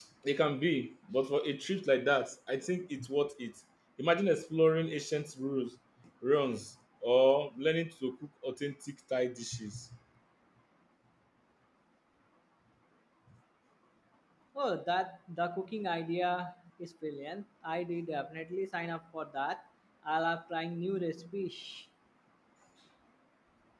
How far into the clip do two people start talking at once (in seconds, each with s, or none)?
none